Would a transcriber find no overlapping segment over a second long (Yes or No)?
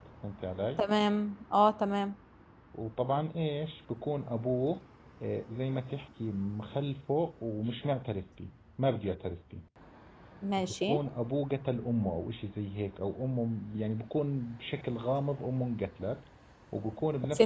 Yes